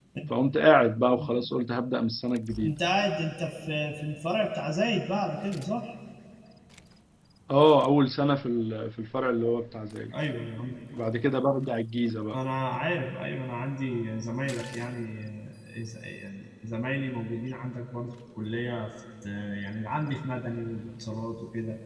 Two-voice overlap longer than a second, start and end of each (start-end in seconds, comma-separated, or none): none